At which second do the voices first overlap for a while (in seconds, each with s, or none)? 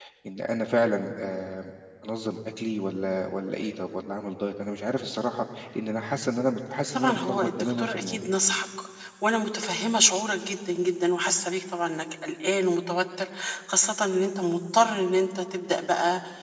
6.9 s